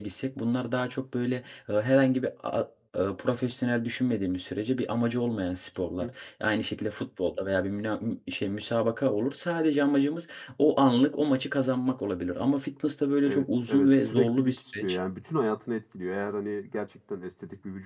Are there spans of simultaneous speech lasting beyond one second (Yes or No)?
Yes